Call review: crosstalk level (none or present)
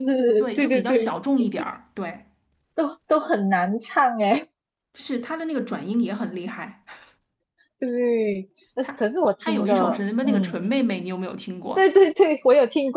present